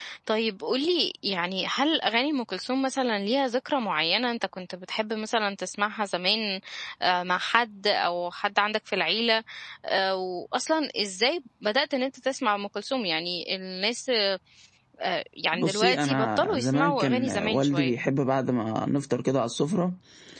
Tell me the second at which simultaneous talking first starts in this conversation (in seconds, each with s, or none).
15.5 s